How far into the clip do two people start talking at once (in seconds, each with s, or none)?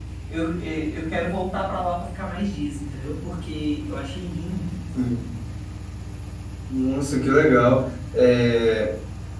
none